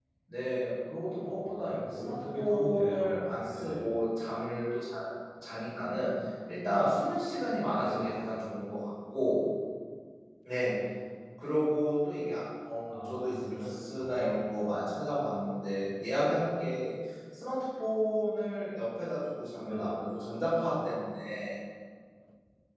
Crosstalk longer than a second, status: present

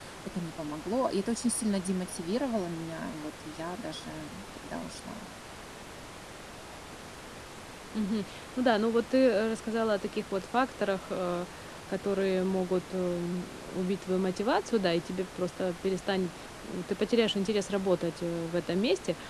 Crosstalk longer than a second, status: none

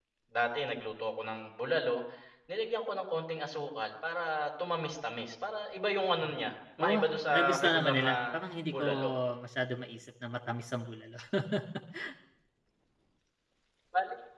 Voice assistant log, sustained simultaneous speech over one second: present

